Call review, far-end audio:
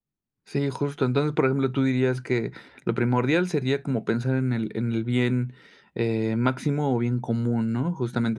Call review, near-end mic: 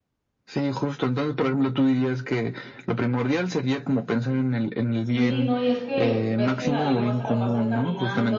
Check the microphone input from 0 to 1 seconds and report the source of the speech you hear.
echo only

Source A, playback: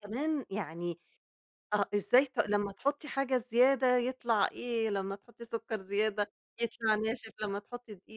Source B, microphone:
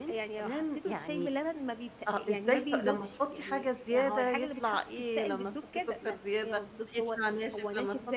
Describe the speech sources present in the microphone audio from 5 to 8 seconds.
both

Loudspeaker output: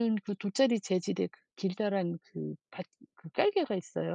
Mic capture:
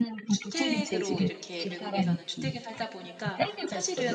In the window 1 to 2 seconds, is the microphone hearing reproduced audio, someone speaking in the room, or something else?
both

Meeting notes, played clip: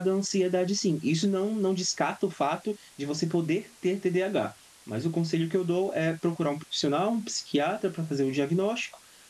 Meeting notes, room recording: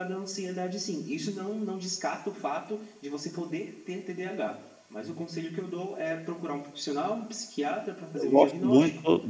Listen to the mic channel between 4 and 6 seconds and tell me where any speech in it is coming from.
echo only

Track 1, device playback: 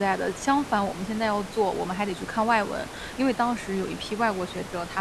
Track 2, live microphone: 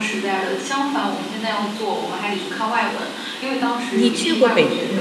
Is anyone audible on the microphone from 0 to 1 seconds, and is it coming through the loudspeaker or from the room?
echo only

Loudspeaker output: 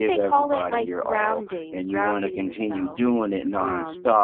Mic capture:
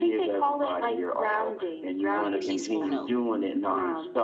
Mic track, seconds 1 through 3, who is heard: both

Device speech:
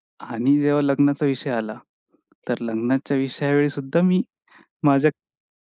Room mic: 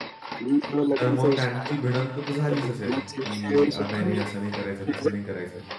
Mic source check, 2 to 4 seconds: both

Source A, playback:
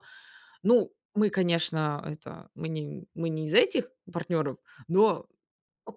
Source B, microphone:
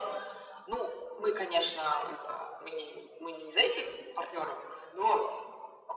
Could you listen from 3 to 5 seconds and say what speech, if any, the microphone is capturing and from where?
echo only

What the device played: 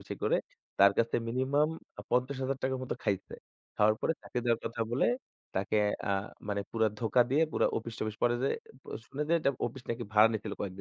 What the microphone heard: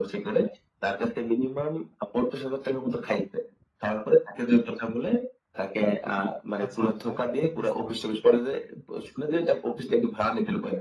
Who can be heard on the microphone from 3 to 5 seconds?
echo only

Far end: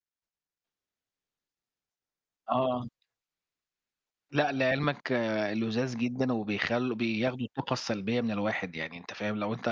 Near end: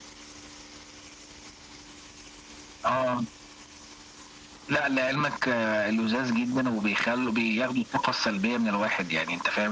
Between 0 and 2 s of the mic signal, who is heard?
neither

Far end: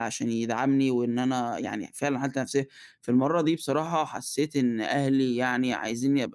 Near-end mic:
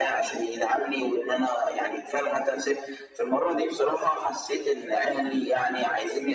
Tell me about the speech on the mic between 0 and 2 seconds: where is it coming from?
echo only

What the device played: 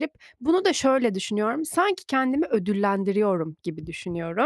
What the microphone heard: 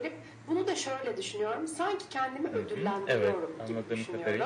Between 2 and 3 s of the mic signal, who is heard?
both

